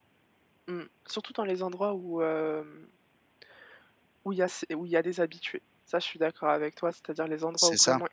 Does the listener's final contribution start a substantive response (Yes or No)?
No